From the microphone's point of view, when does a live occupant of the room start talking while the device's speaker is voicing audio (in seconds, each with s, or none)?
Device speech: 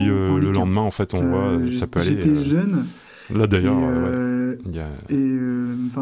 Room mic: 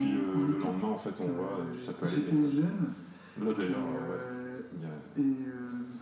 none